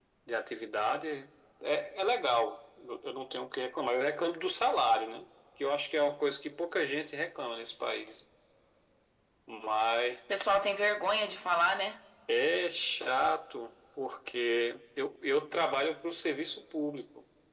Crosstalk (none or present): none